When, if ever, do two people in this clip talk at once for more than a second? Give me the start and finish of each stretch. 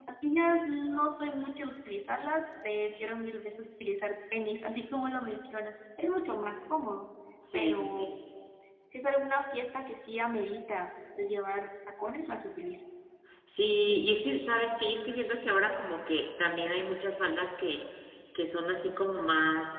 none

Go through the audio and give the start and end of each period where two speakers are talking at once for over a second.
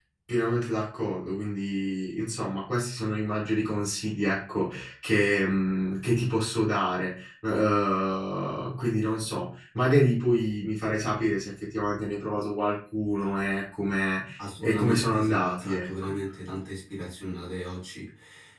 14.6-16.2

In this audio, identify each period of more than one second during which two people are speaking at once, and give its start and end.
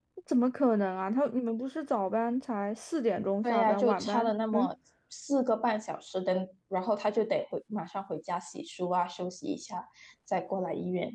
3.4-4.7

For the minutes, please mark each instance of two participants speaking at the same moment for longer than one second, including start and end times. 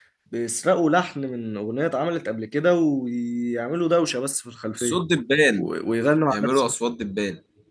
none

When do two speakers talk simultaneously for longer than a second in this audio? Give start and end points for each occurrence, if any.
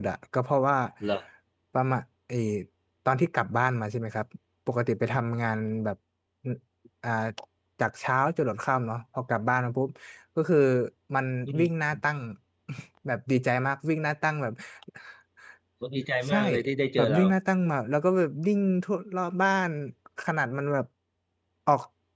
none

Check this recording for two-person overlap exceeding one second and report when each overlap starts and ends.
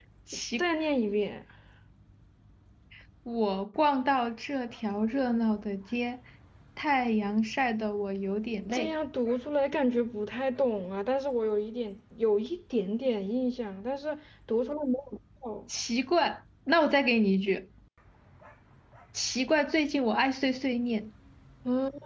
none

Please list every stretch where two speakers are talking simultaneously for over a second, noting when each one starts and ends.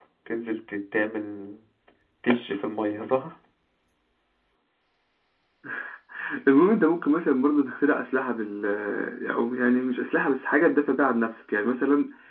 none

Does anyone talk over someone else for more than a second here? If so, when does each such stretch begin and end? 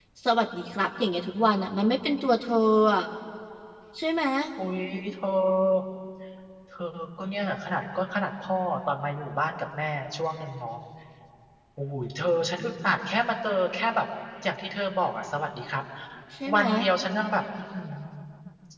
none

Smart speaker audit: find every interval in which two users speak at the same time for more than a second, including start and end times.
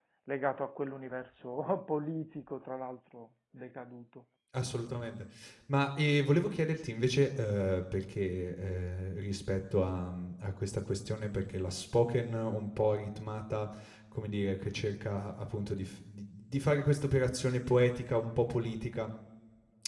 none

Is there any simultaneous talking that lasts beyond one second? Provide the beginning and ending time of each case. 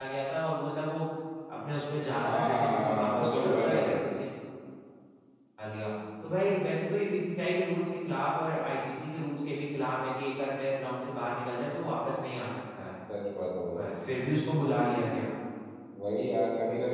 2.3-4.0

